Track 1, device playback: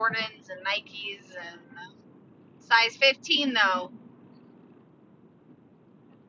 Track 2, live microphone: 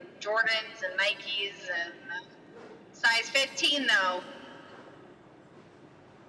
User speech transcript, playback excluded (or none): none